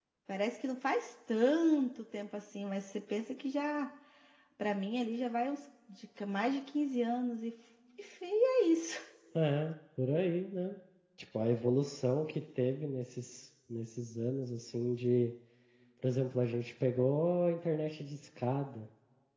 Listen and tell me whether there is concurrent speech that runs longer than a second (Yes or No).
No